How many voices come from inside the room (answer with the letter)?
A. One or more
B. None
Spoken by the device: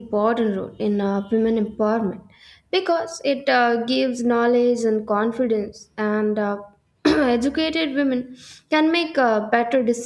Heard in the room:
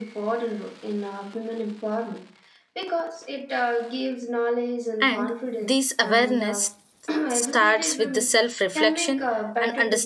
A